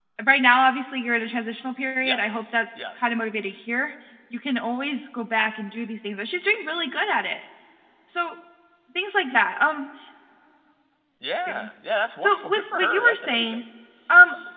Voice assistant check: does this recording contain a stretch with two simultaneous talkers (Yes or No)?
Yes